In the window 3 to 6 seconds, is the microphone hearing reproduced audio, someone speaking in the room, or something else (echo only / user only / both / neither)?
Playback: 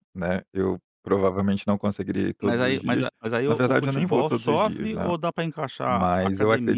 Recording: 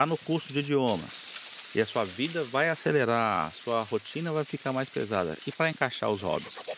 user only